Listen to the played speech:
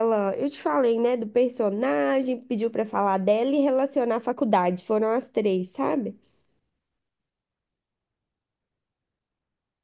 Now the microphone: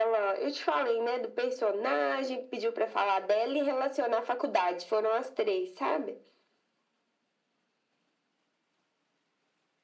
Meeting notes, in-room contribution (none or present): none